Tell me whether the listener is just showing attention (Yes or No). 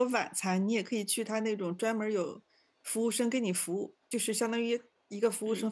Yes